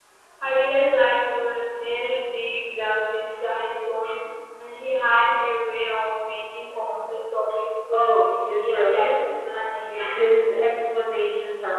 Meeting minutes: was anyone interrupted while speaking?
Yes, from 7.9 s

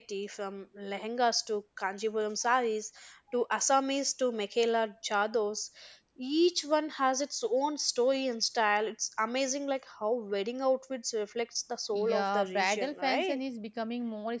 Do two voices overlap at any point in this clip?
Yes, from 11.9 s

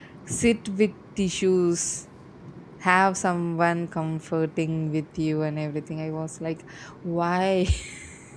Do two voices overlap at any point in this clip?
No

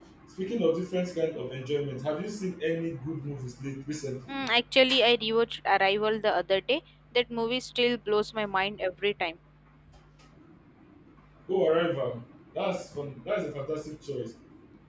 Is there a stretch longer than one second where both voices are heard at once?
No

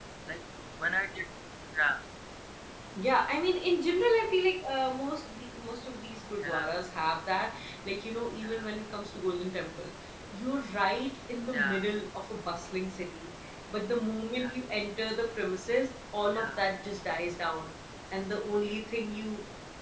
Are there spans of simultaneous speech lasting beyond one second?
No

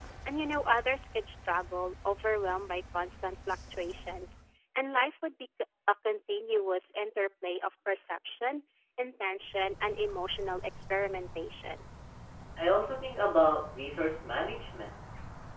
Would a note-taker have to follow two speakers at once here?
No

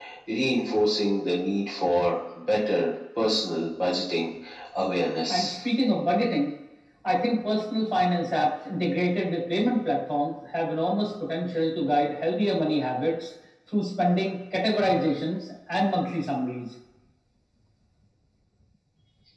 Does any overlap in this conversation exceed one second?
No

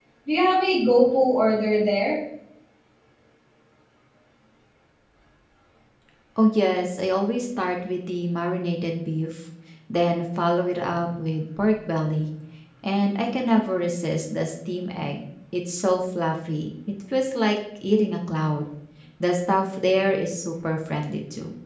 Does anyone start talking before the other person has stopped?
No

